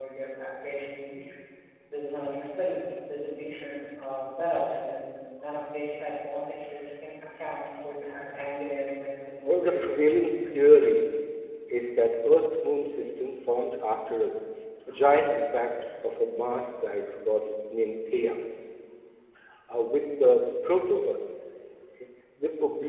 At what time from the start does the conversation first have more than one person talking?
9 s

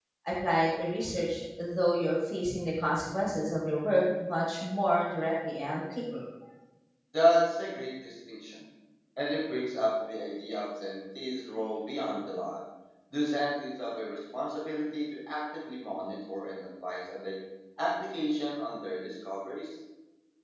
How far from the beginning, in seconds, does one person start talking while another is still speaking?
none

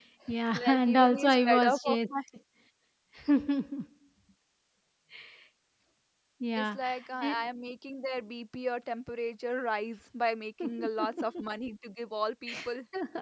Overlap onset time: 1 s

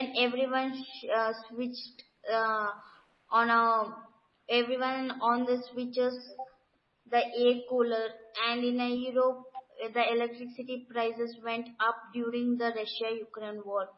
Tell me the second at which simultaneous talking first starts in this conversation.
none

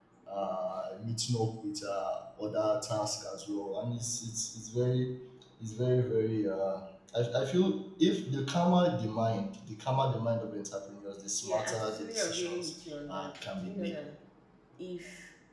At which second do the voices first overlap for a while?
11 s

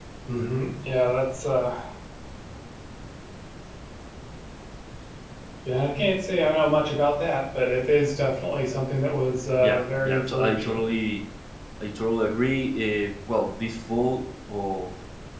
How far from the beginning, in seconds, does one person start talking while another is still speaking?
10 s

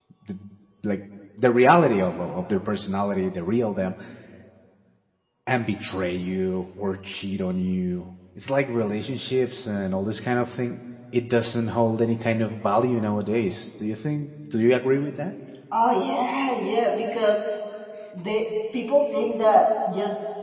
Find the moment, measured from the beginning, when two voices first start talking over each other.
none

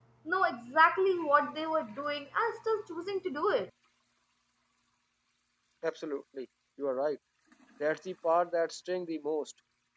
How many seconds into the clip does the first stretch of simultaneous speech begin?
none

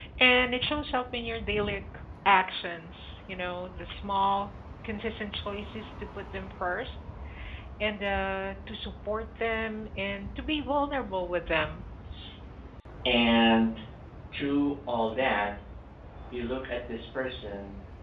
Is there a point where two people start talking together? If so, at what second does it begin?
none

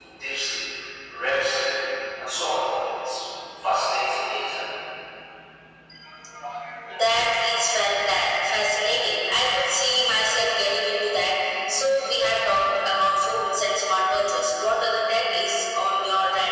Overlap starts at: none

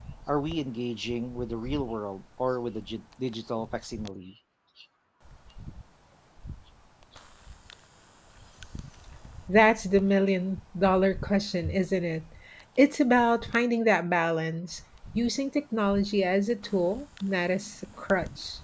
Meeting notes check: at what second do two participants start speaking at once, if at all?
none

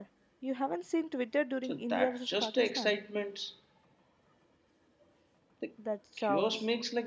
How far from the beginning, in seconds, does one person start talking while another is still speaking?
2 s

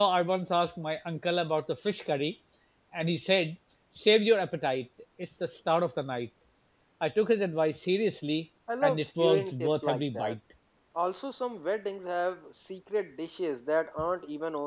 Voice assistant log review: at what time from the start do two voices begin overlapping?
9 s

